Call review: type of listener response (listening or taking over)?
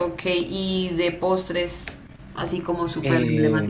taking over